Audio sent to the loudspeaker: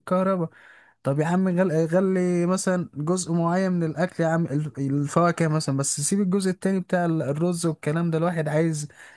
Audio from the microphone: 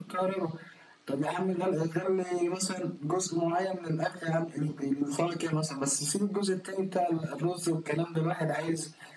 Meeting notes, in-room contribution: none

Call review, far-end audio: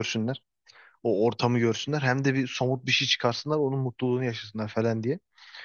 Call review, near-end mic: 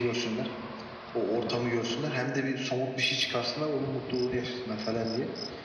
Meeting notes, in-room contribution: none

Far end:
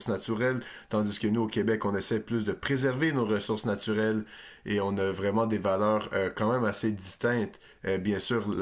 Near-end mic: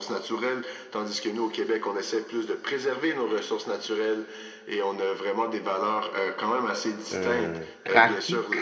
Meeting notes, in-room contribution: present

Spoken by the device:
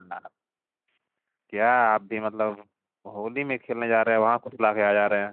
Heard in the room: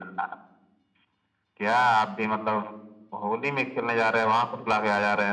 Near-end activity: none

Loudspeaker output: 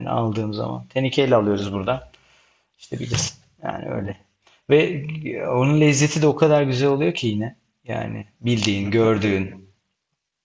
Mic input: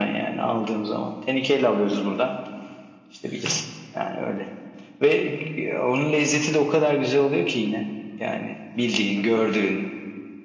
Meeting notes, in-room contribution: none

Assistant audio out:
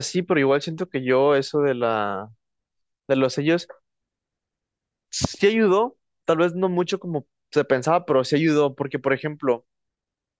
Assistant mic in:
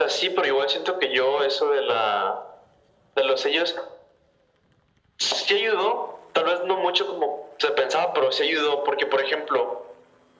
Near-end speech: none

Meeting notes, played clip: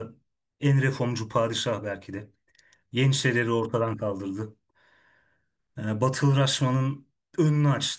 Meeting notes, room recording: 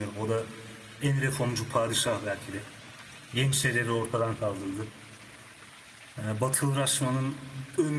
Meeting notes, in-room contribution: none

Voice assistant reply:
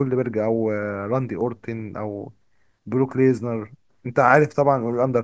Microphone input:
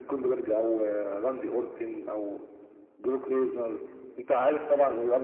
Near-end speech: none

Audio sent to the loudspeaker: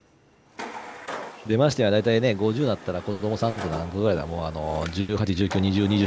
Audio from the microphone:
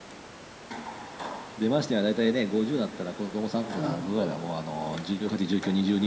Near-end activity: present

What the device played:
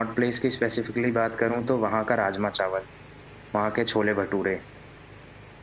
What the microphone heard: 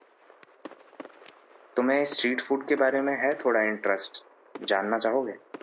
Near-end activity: present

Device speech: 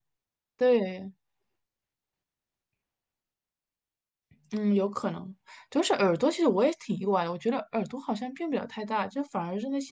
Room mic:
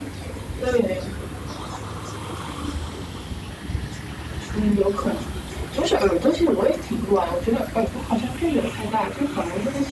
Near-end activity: none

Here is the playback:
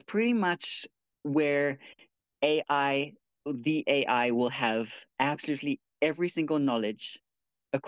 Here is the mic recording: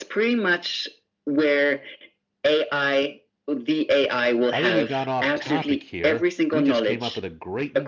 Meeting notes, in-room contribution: present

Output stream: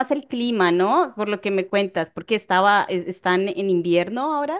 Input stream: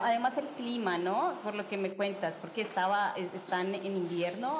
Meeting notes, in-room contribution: none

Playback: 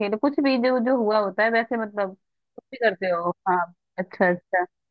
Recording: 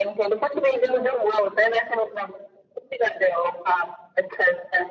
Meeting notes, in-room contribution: none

